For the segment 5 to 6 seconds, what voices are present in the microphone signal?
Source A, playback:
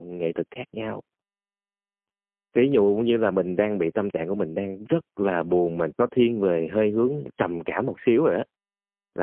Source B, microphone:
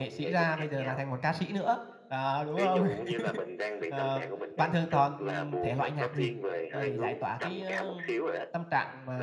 both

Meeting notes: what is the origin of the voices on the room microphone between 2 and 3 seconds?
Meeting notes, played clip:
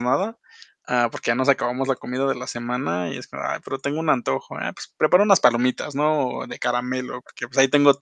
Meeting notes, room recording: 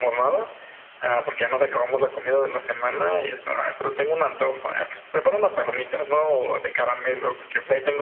echo only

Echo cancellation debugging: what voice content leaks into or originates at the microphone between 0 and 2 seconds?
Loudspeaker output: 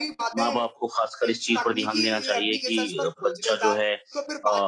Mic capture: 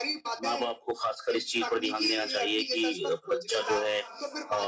echo only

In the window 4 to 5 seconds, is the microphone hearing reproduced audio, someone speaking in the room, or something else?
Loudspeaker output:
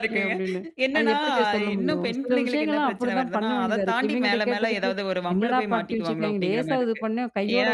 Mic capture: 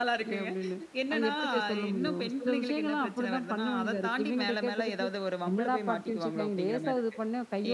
echo only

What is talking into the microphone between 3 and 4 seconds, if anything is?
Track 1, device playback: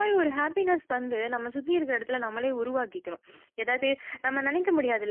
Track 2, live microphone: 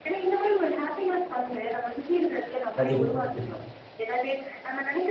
both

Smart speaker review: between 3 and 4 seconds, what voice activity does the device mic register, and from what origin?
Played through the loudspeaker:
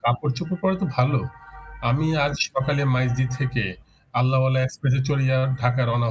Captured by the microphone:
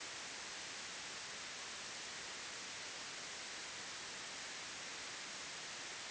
neither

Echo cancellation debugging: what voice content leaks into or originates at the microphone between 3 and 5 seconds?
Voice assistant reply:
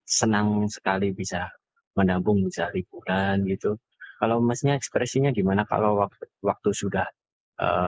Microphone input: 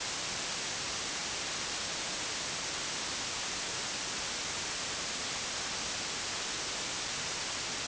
neither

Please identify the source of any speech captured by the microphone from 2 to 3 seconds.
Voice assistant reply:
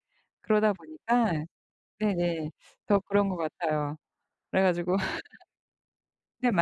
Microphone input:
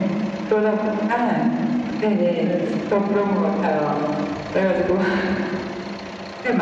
both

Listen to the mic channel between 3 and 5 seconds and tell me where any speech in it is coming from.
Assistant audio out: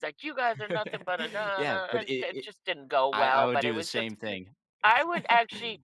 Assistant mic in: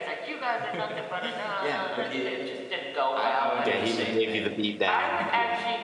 both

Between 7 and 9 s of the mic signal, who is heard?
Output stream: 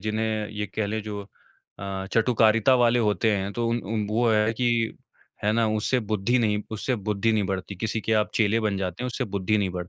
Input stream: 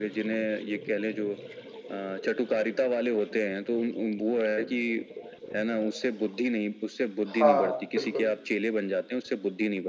both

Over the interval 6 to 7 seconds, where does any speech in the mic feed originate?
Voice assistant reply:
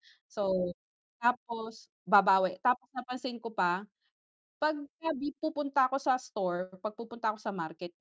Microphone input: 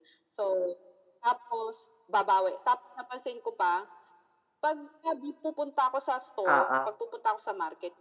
both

